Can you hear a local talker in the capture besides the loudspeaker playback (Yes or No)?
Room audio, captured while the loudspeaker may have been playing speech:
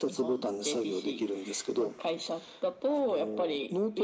No